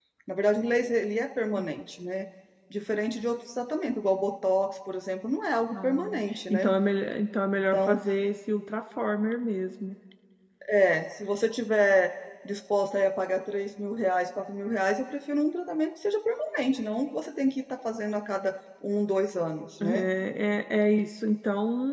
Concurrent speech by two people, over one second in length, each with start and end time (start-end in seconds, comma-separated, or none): none